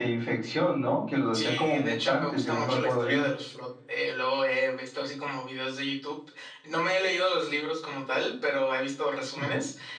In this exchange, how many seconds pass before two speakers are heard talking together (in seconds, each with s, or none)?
1.3 s